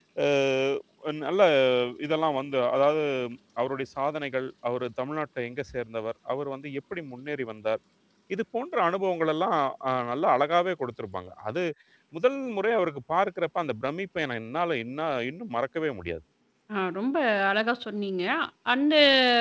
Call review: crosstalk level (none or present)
none